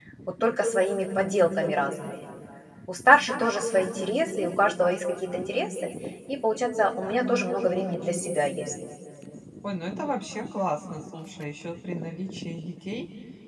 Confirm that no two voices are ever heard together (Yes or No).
Yes